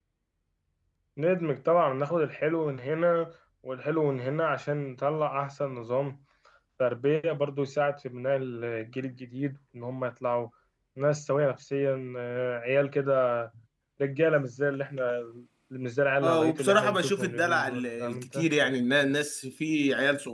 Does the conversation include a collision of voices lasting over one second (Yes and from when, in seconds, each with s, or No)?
Yes, from 16.2 s